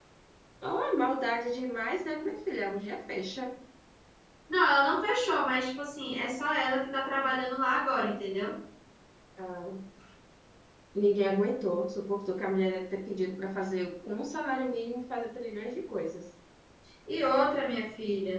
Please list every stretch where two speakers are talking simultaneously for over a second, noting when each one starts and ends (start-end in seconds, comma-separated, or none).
none